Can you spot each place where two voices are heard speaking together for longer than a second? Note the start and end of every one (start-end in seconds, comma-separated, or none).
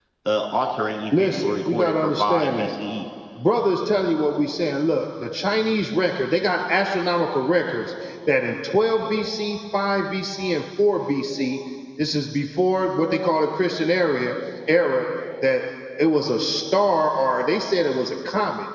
1.1-2.7